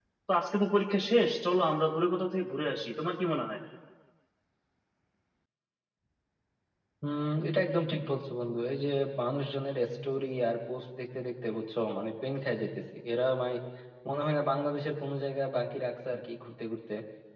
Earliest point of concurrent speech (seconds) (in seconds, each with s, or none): none